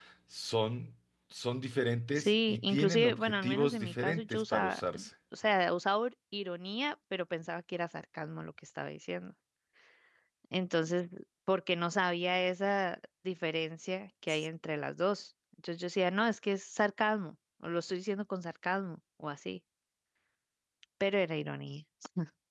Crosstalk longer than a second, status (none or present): present